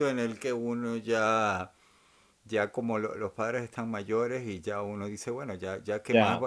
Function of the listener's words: listening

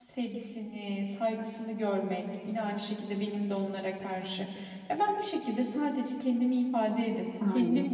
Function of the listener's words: listening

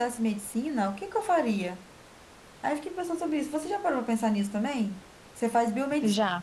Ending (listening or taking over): listening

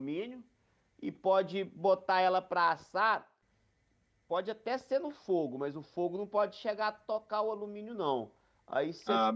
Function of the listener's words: listening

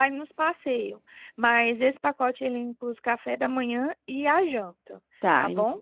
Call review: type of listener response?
taking over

